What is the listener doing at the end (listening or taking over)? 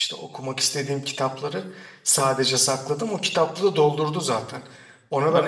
listening